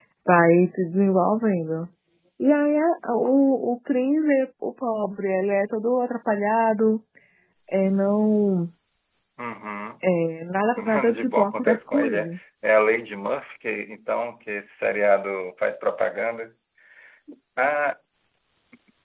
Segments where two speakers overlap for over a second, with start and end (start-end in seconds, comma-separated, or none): 10.8-12.3